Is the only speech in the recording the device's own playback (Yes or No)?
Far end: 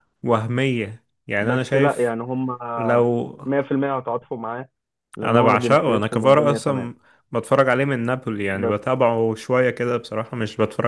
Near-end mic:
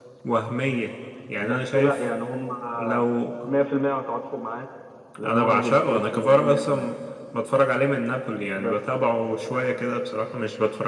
Yes